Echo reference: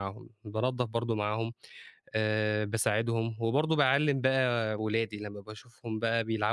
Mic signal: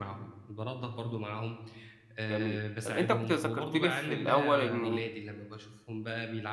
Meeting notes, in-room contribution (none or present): present